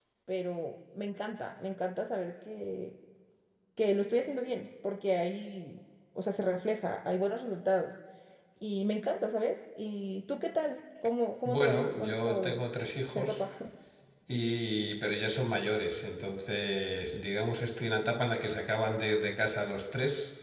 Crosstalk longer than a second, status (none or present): present